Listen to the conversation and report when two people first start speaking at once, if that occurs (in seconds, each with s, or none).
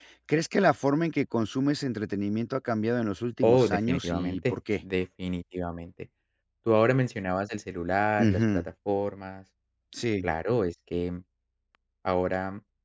3.4 s